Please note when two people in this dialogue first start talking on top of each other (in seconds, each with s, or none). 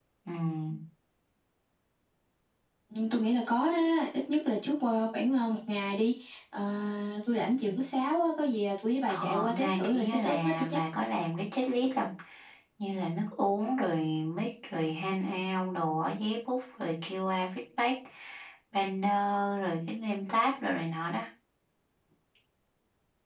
9.1 s